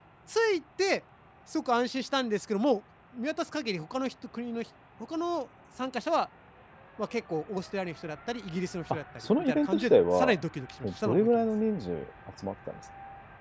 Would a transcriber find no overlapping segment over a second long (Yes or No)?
No